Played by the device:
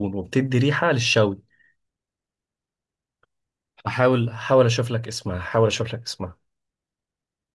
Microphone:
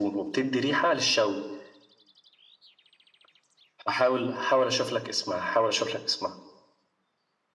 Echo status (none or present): present